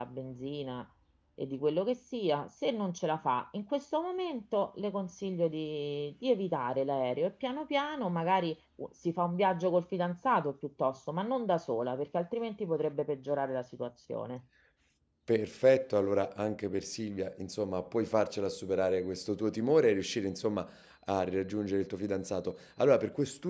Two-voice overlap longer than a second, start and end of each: none

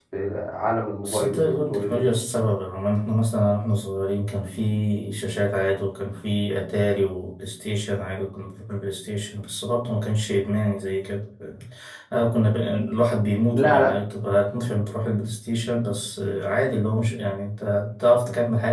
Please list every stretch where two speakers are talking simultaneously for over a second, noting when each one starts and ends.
1.0-2.5

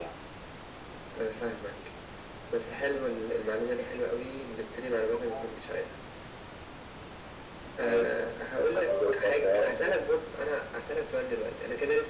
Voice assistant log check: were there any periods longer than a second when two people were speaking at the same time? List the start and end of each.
8.7-10.0

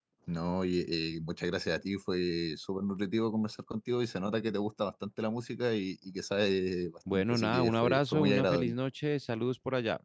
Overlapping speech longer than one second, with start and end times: 7.1-8.7

